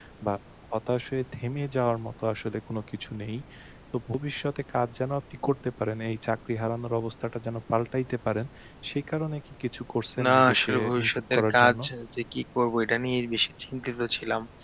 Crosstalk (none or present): present